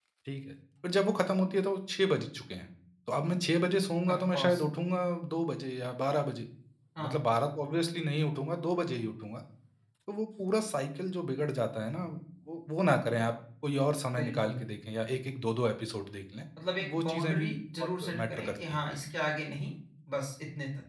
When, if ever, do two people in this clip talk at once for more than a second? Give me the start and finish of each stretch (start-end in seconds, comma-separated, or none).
16.9-18.8